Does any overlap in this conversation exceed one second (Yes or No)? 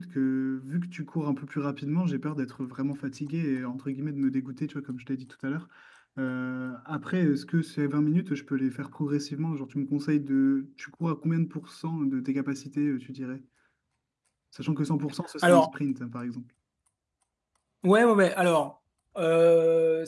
No